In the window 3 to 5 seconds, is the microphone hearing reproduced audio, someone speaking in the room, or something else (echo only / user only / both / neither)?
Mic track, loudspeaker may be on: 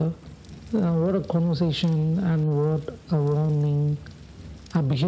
echo only